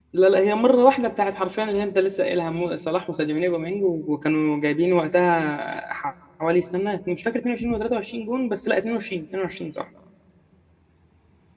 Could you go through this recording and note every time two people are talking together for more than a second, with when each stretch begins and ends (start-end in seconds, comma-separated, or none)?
none